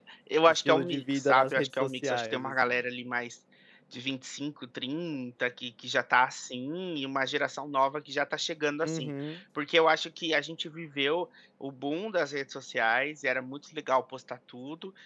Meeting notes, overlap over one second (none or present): present